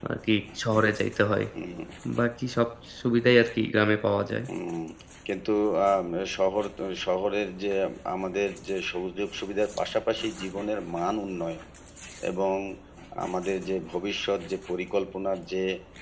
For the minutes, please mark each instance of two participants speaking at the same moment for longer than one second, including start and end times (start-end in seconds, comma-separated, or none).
none